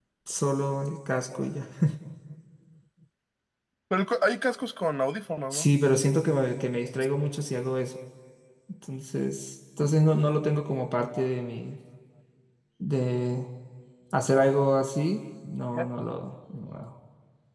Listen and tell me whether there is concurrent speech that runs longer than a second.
No

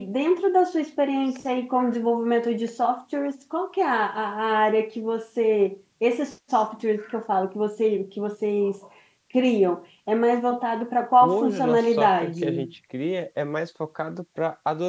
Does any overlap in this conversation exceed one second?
Yes, from 11.2 s

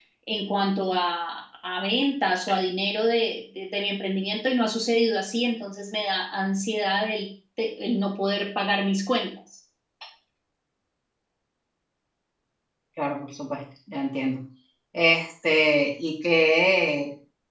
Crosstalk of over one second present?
No

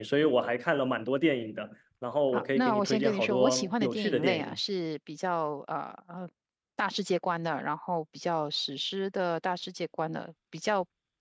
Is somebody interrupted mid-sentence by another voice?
Yes, from 2.3 s

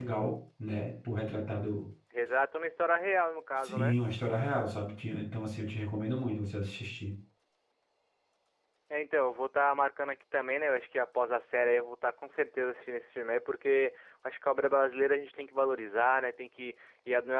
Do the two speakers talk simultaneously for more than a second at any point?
No

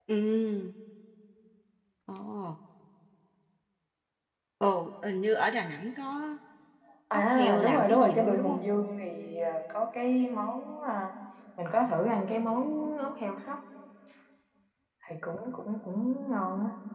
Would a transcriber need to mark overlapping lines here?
Yes, from 7.1 s

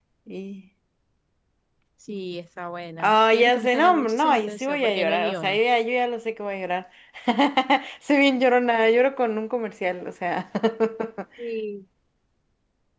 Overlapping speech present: Yes, from 3.0 s

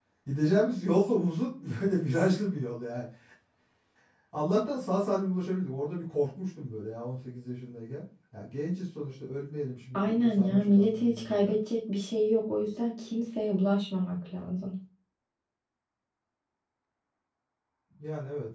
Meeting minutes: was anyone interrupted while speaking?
Yes, from 9.9 s

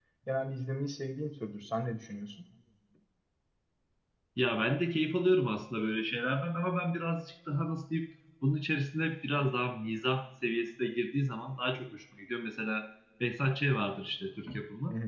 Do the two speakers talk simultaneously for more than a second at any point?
No

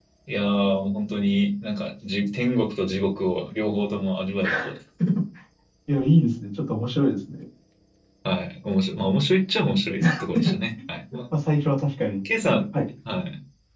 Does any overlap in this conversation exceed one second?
No

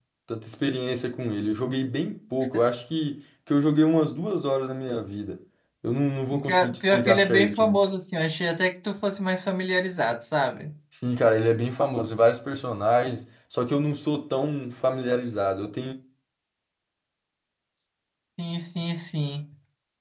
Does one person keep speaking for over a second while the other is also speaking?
Yes, from 6.4 s

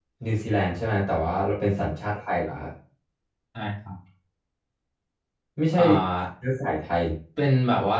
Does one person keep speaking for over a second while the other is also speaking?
No

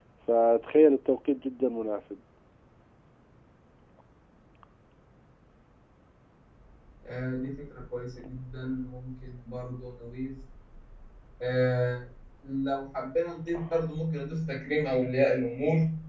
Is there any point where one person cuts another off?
No

